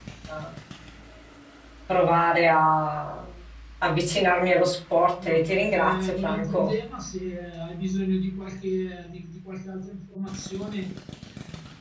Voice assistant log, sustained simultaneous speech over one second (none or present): present